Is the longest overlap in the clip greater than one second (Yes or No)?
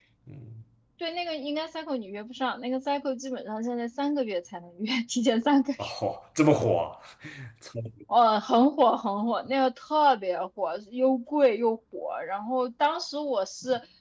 No